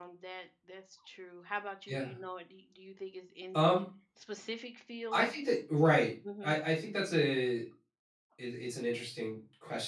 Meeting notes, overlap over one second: none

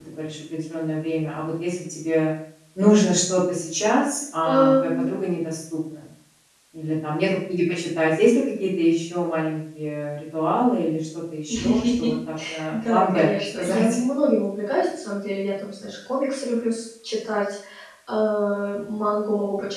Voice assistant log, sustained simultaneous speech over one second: present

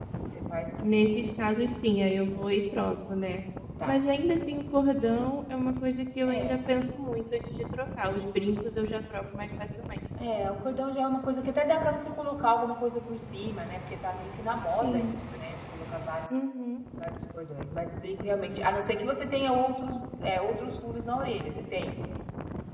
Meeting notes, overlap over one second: none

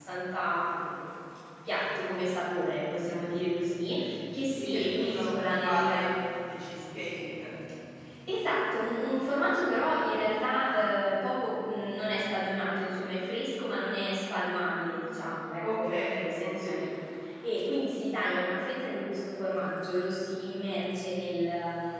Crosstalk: present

